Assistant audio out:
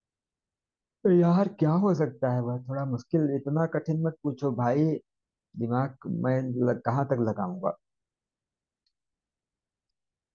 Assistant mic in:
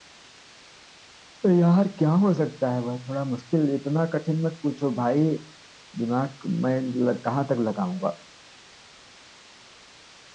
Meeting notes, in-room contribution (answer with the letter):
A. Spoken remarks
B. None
B